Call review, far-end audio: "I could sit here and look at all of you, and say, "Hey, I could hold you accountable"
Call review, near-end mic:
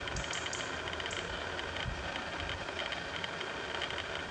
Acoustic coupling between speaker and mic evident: No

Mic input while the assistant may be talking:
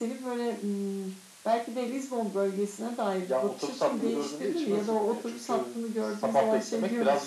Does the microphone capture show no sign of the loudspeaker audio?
No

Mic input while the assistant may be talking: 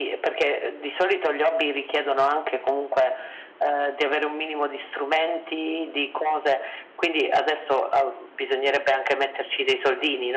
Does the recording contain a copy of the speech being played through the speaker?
Yes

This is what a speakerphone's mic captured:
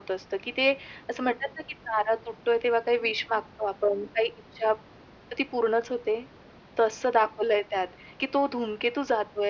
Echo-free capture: No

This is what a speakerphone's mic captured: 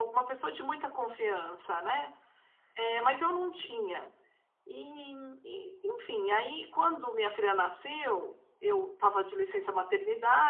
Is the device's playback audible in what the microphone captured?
Yes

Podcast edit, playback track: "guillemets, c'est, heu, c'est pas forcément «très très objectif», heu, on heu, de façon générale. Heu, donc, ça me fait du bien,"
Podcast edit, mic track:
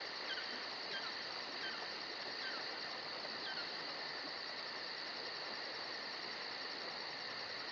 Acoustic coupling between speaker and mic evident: No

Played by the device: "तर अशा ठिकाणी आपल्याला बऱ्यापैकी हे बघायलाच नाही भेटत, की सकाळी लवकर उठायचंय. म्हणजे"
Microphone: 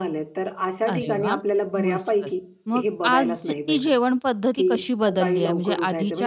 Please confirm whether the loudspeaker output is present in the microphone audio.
Yes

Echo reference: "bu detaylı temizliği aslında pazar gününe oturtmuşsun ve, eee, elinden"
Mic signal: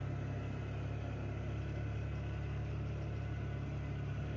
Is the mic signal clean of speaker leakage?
Yes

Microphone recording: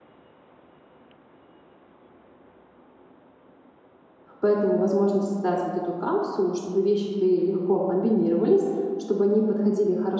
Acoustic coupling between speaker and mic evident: No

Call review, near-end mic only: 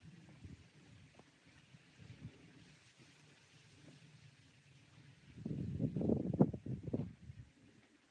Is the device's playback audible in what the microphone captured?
No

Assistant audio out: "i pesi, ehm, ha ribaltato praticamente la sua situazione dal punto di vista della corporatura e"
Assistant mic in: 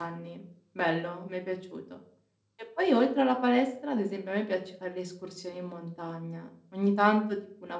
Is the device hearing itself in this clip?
No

